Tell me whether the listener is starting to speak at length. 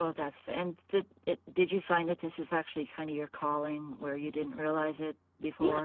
Yes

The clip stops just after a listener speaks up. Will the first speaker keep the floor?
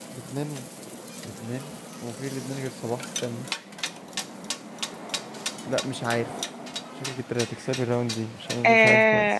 No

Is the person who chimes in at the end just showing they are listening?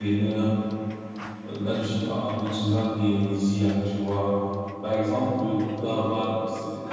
Yes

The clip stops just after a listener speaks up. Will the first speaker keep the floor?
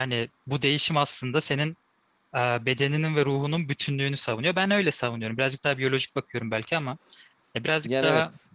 No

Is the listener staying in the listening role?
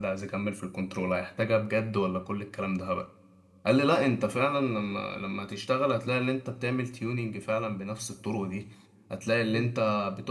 Yes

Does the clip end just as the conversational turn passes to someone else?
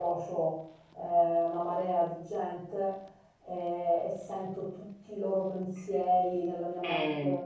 No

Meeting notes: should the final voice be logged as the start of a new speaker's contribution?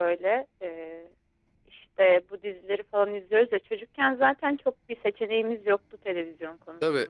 Yes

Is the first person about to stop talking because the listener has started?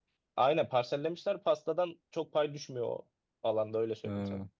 No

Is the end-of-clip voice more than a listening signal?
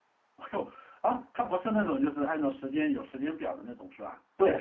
Yes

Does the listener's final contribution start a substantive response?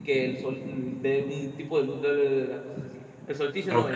Yes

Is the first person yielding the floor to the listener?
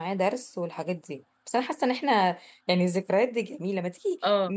No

